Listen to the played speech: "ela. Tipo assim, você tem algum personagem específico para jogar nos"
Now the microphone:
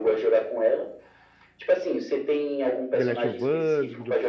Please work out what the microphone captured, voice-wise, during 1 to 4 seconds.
both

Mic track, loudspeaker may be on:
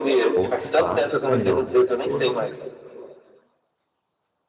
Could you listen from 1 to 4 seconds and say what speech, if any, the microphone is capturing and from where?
both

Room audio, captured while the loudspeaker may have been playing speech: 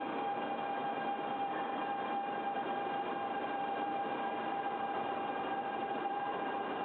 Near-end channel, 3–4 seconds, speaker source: neither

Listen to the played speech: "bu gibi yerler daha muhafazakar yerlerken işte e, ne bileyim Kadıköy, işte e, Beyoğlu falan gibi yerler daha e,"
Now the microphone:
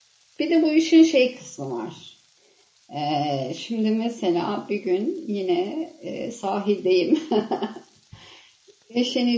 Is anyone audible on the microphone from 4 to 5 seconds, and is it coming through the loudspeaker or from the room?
user only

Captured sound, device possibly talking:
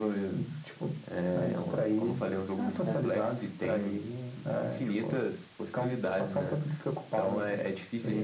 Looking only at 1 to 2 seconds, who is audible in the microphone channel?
echo only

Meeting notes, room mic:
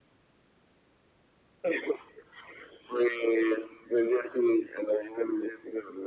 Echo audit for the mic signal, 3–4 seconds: echo only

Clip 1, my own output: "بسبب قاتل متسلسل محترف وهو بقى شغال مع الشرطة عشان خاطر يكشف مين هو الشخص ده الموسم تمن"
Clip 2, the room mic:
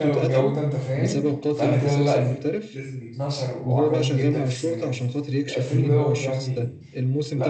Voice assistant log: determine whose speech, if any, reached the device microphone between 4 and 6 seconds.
both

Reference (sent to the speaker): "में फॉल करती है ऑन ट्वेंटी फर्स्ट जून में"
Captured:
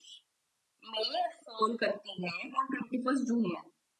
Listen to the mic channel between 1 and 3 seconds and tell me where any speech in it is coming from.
echo only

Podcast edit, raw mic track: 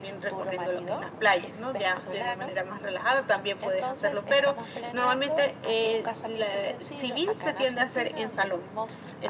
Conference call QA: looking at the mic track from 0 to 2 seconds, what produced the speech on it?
echo only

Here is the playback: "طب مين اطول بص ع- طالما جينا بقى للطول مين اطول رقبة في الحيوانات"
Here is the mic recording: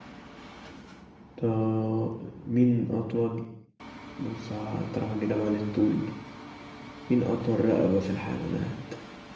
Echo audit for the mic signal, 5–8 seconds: echo only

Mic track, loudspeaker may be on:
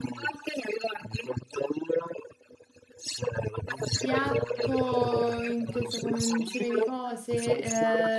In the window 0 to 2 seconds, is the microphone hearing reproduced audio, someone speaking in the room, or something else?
echo only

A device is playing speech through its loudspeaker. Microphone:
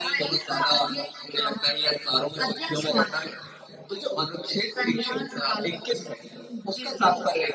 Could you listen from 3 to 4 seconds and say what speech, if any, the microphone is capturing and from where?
echo only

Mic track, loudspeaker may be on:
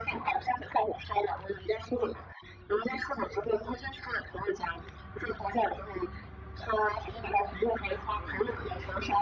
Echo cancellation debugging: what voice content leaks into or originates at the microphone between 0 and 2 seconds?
echo only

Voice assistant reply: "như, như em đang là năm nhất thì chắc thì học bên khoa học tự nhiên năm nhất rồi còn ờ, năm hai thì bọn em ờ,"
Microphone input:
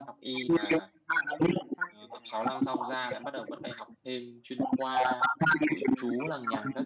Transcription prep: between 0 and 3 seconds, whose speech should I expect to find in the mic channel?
both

